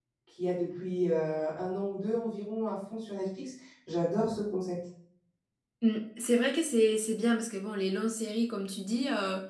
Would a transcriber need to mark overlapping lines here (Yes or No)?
No